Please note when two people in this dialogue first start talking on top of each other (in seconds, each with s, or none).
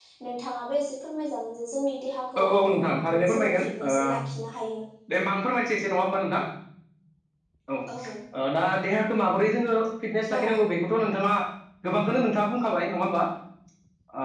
2.4 s